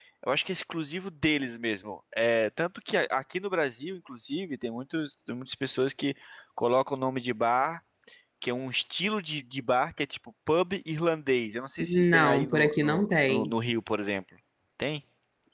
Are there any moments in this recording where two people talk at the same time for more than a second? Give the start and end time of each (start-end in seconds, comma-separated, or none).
11.9-13.5